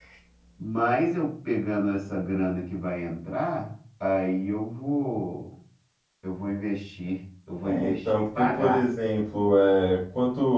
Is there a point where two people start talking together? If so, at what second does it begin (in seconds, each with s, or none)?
7.6 s